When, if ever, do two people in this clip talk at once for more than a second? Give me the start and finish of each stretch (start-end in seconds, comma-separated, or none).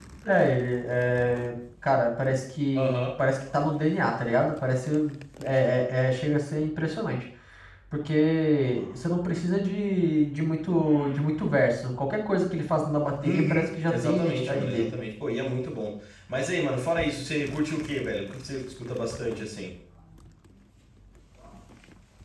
13.2-14.9